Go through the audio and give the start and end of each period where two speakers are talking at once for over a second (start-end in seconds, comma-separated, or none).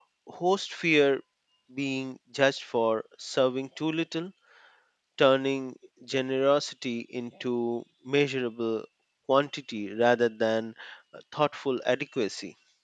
none